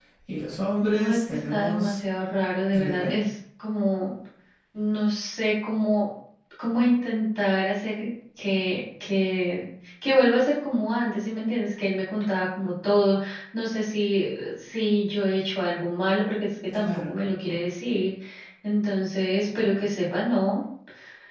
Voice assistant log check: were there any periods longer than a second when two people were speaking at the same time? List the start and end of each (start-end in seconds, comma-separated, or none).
0.8-2.0